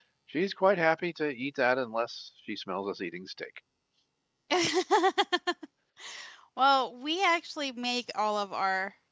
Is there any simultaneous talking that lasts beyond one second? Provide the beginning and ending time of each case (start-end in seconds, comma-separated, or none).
none